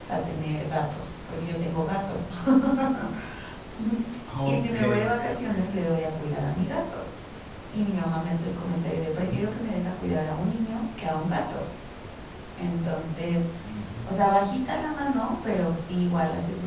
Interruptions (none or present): present